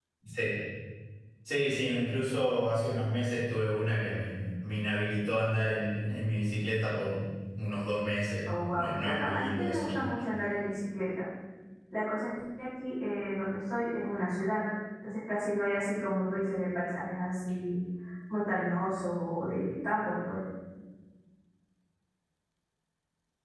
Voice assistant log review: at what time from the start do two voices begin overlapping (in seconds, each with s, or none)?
8.5 s